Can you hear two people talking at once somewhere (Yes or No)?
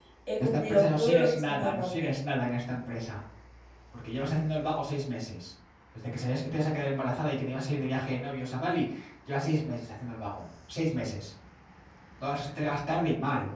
Yes